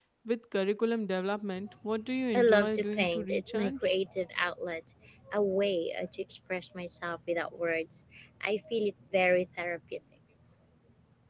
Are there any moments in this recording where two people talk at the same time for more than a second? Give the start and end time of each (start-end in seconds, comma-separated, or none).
2.4-3.9